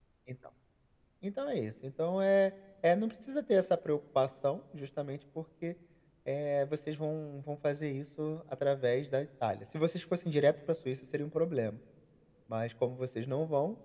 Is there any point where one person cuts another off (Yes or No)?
No